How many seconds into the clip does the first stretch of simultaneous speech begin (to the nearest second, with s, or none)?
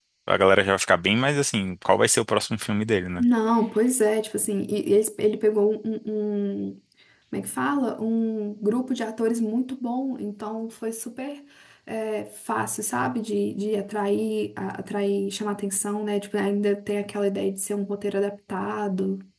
none